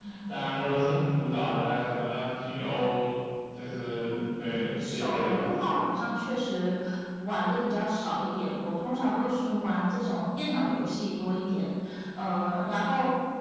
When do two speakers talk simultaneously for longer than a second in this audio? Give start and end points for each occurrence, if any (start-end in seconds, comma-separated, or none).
4.1-5.4